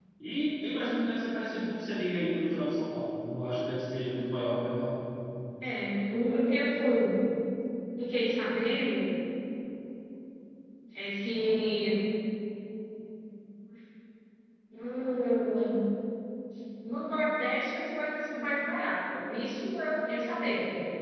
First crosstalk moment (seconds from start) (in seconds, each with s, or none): none